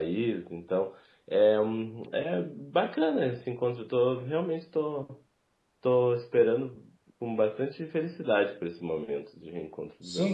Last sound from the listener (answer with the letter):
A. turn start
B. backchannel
A